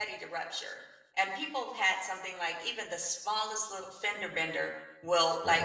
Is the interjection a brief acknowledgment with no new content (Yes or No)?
Yes